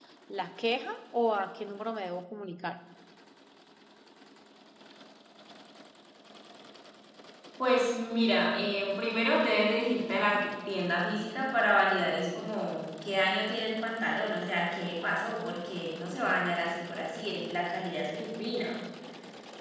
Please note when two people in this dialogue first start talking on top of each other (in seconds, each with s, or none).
none